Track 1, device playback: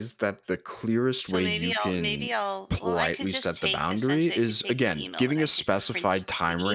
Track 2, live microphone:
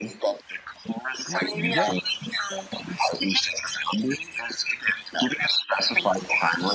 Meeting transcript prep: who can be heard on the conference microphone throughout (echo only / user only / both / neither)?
both